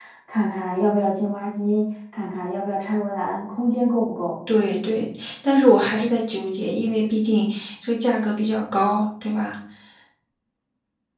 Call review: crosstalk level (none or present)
none